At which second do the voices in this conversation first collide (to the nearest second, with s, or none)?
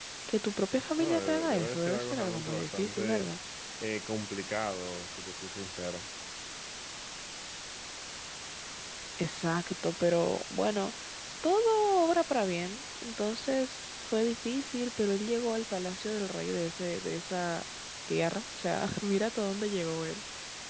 1 s